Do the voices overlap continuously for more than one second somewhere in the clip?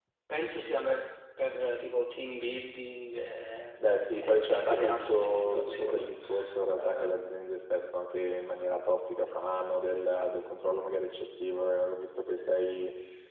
Yes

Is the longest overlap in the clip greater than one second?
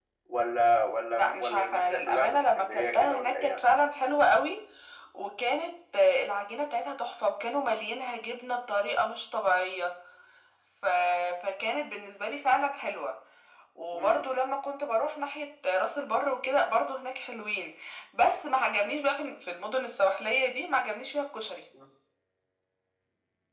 Yes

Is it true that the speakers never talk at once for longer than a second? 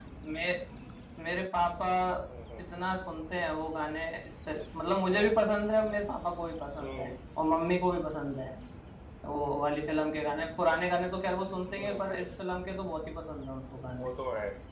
Yes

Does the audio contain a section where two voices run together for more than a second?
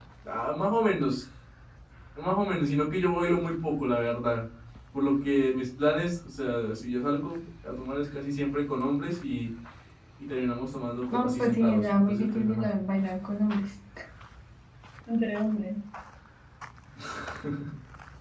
Yes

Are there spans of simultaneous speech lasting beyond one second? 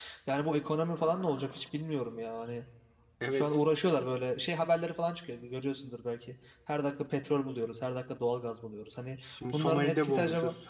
Yes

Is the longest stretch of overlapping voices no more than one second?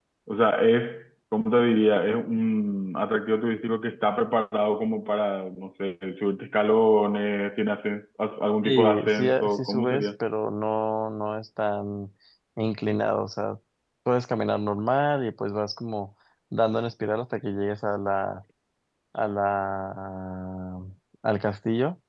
No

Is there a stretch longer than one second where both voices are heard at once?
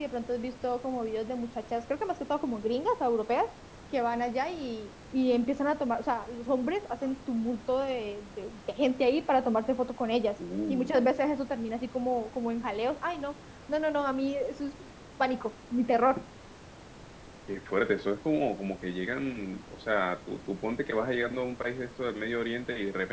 No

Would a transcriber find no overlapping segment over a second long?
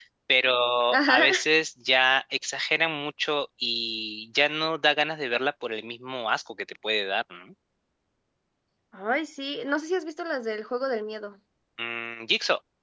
Yes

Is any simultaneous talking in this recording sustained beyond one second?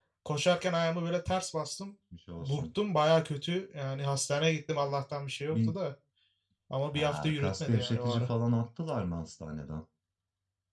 Yes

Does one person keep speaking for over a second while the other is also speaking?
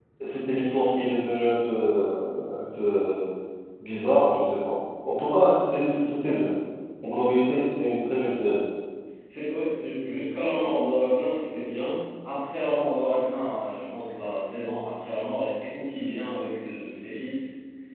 No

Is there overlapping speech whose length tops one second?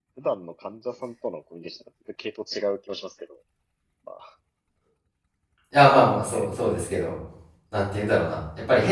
No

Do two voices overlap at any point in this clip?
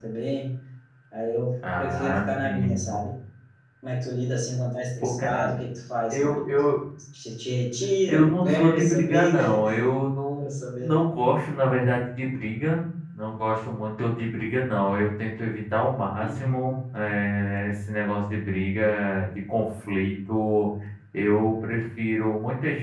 Yes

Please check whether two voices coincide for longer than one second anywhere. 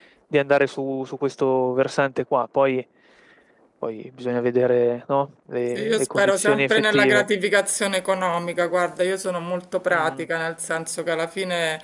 Yes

